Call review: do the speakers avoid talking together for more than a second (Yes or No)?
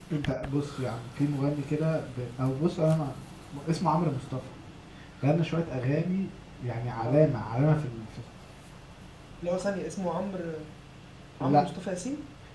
Yes